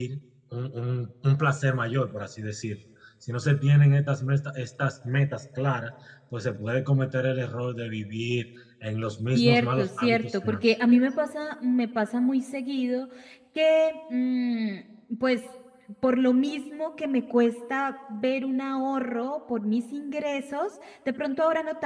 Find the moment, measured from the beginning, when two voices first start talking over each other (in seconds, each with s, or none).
9.3 s